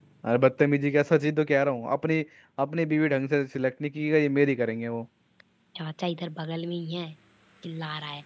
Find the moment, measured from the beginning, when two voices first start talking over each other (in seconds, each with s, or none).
none